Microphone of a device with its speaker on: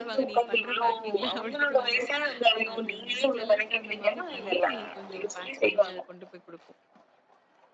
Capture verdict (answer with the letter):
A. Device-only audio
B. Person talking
B